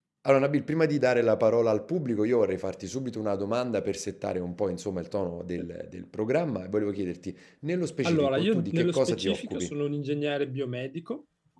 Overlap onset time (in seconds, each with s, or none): 8.0 s